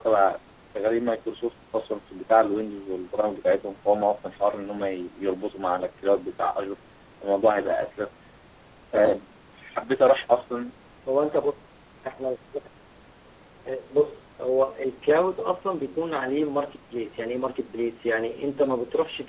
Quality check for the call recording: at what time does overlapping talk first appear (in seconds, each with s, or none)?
none